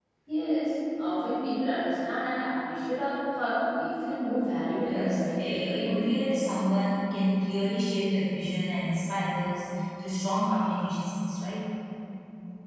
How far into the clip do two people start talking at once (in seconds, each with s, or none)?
4.8 s